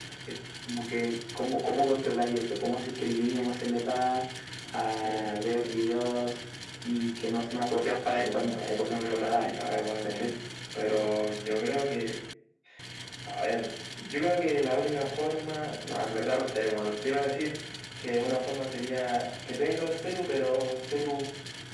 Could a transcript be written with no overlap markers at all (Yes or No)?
No